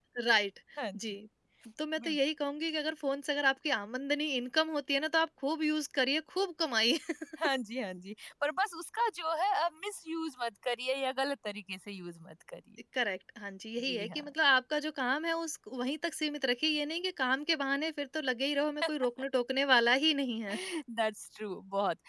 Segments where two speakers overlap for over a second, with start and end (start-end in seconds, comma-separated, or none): none